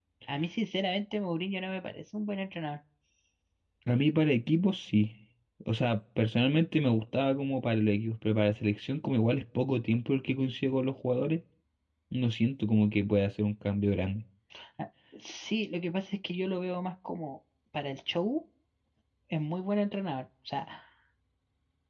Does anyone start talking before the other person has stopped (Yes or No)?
No